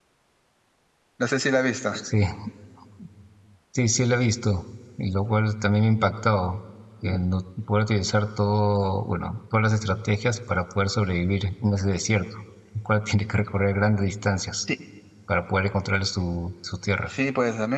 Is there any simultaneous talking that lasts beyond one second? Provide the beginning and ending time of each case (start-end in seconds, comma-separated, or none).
none